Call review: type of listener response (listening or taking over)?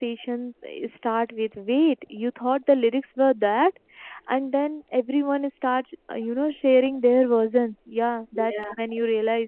listening